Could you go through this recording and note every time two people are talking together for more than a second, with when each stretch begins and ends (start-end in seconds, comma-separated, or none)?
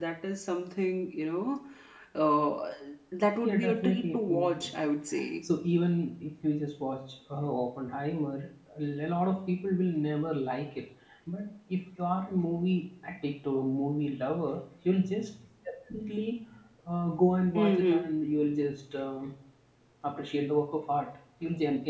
3.4-4.7